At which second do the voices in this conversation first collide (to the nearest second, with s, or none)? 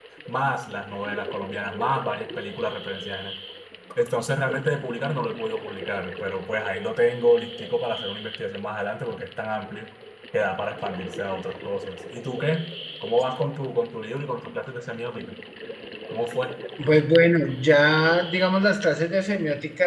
none